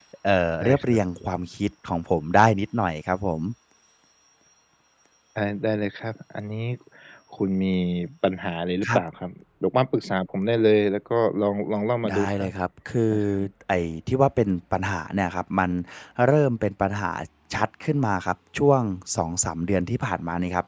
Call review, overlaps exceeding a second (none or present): none